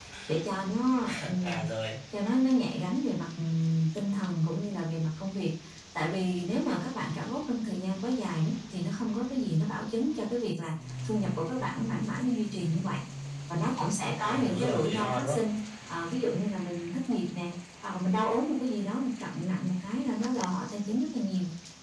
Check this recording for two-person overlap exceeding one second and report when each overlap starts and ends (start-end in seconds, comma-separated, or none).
14.2-15.4